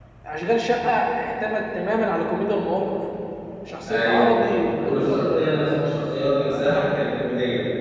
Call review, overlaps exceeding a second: present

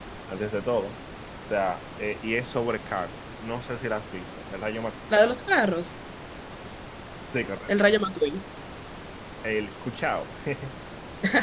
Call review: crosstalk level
none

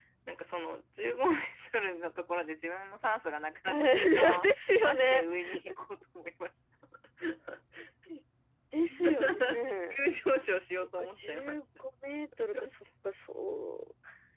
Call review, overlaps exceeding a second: present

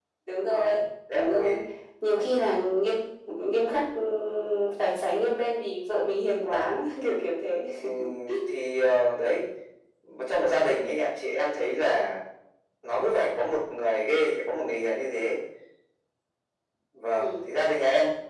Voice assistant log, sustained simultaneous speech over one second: none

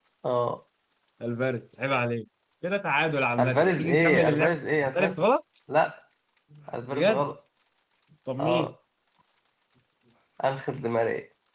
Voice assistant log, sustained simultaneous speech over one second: present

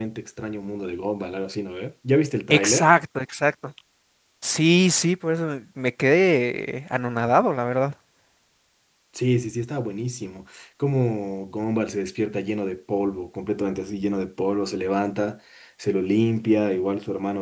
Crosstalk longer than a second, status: none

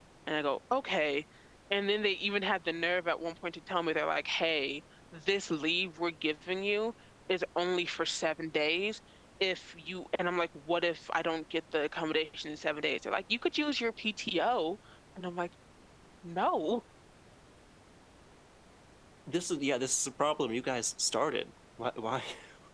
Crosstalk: none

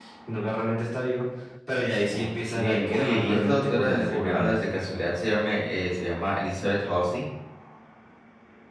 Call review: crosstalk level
present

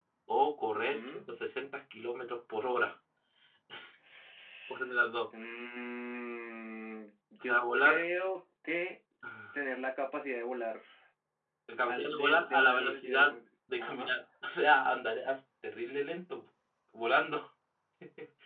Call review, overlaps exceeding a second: present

